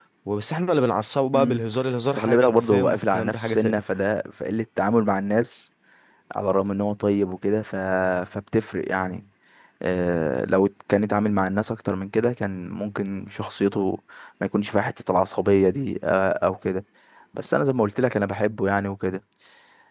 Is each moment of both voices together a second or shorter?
No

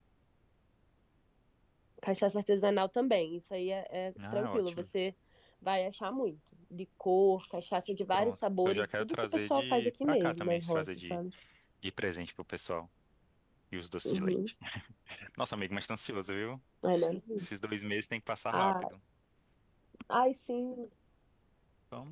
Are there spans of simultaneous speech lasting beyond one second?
Yes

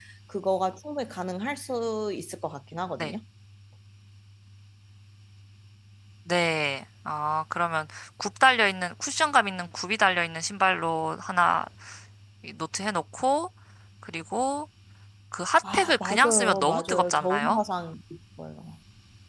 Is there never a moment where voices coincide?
No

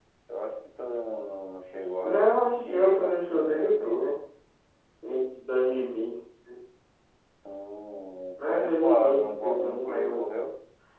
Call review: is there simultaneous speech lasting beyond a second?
Yes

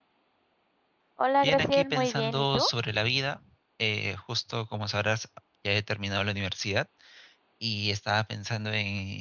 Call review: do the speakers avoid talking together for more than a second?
No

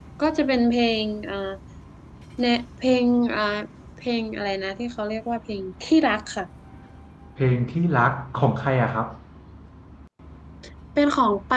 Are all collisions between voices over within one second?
Yes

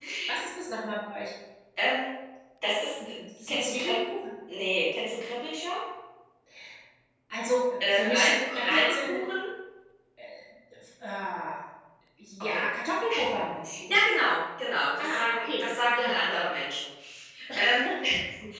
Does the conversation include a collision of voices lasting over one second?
Yes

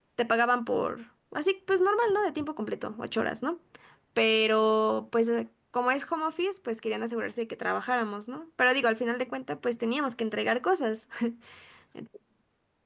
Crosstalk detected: No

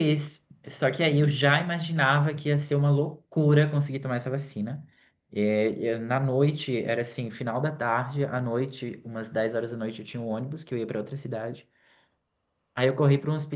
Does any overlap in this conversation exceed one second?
No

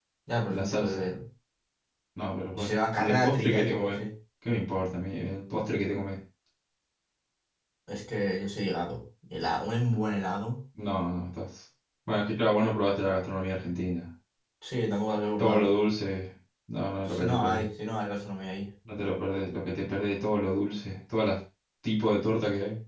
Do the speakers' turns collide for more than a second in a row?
Yes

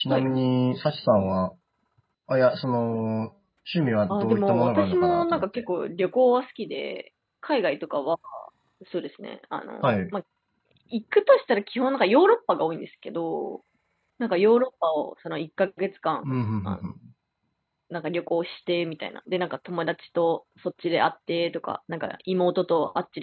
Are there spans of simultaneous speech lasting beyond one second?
Yes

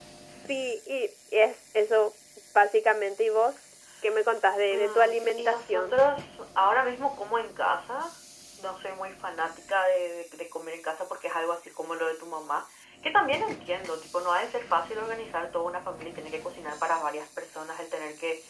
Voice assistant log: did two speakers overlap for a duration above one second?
Yes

